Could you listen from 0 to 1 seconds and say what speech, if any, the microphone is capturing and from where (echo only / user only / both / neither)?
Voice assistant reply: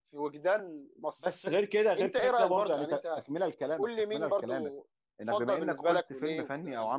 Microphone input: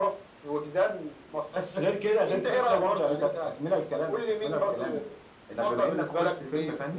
echo only